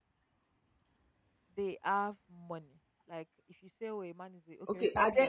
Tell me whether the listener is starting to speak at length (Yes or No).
Yes